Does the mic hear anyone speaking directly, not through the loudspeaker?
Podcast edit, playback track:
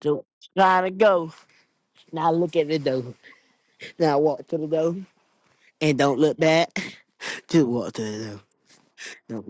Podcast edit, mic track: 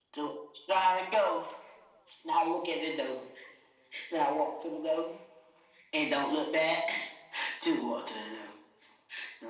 No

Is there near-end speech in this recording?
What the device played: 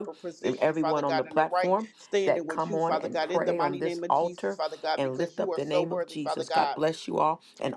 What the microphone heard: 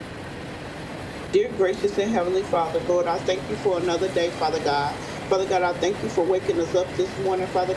Yes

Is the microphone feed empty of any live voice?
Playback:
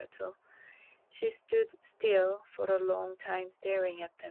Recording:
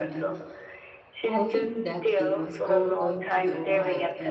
No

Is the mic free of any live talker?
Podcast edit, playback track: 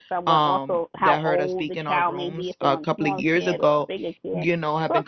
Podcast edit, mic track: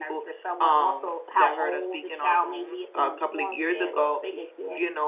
Yes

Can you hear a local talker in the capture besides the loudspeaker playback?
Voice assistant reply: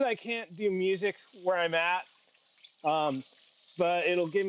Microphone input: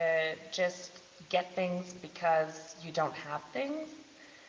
Yes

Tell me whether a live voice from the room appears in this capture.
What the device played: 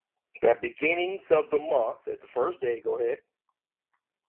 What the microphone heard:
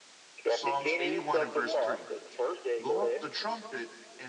Yes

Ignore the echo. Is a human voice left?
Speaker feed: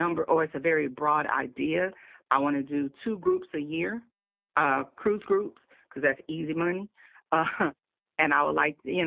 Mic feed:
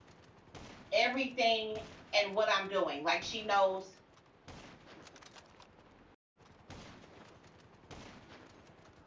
Yes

